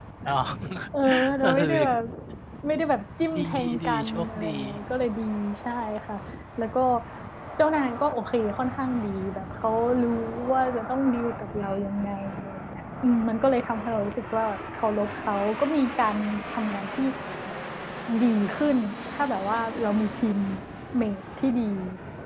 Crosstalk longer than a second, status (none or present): present